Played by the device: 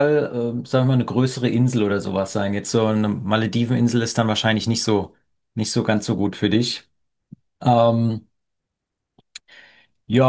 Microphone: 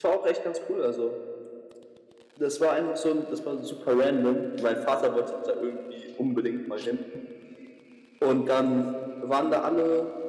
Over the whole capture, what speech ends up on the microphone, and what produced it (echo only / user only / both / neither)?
user only